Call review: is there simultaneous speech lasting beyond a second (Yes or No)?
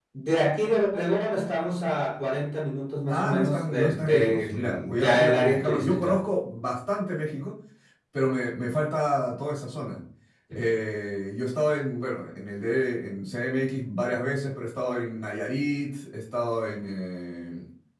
Yes